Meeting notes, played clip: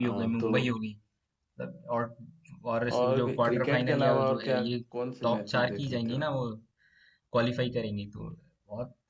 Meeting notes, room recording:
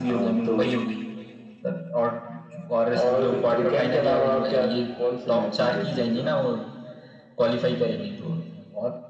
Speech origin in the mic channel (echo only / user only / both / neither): echo only